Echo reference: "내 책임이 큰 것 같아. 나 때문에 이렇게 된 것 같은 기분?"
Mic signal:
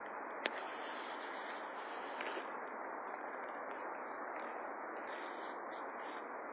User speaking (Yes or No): No